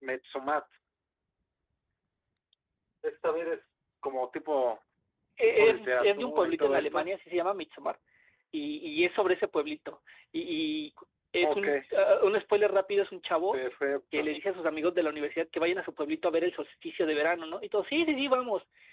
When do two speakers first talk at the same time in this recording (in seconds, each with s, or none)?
5.6 s